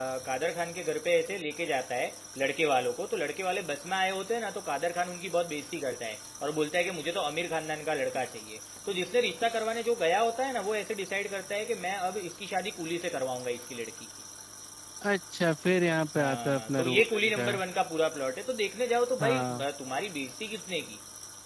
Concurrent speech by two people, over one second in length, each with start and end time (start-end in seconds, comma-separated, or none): 16.2-17.4